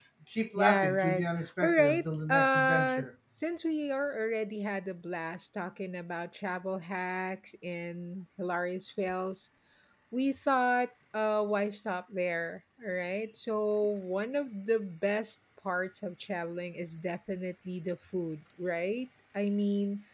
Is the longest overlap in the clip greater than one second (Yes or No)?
Yes